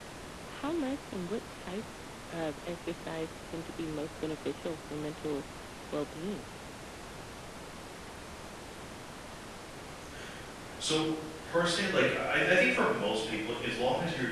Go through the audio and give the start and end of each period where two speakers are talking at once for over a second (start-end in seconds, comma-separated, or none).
none